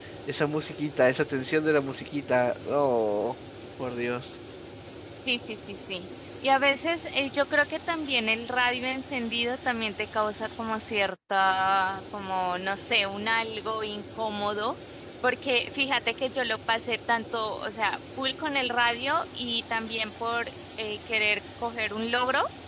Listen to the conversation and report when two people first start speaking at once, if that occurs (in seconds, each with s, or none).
none